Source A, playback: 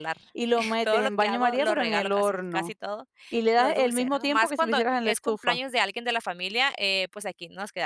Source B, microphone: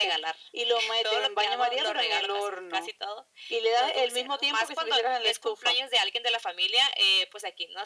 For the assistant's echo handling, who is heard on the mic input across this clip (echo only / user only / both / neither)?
echo only